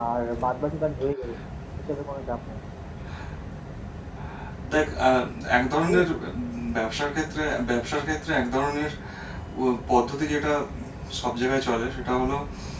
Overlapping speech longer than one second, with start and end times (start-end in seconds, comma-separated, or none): none